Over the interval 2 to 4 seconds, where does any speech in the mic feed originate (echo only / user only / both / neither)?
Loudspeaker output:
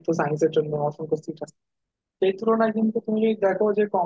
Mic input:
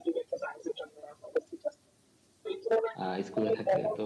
both